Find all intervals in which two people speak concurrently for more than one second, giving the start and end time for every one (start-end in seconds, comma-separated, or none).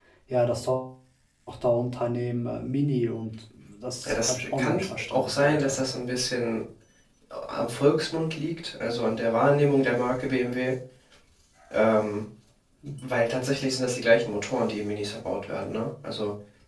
4.1-5.8